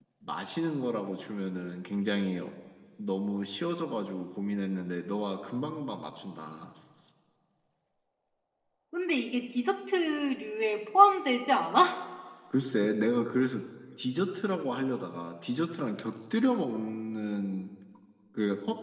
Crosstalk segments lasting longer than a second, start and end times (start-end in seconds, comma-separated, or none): none